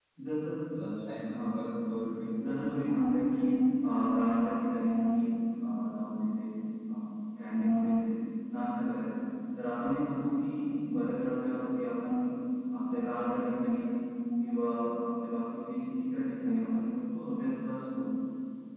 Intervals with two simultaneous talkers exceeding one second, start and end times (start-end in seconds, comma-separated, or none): none